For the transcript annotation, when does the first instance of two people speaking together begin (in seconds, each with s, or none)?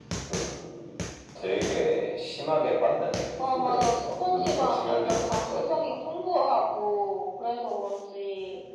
3.4 s